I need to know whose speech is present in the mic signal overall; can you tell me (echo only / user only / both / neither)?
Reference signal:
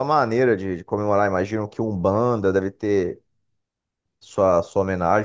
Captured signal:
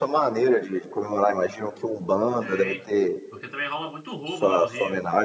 both